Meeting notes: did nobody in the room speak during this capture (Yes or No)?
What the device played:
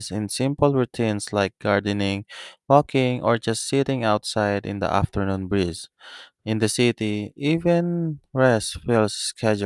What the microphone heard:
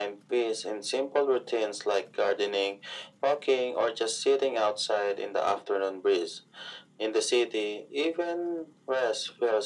Yes